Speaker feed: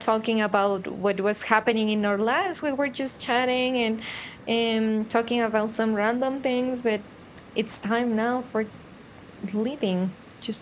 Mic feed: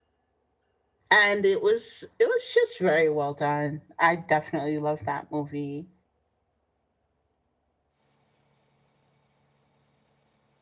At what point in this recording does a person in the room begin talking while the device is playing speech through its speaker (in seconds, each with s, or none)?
1.1 s